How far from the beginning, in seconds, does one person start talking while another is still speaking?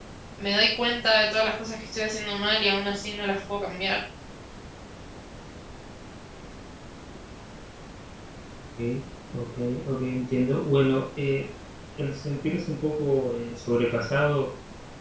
none

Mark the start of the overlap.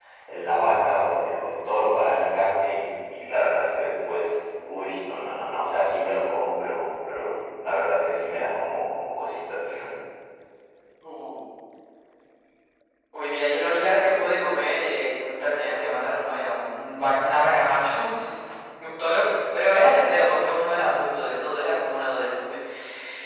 none

